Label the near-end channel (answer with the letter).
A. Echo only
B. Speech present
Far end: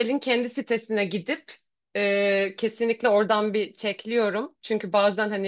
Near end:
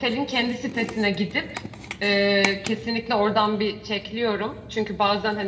A